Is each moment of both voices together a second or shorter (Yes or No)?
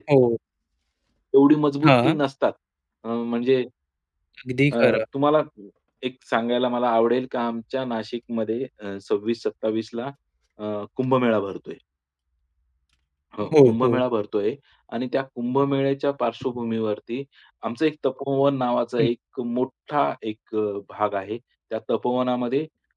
Yes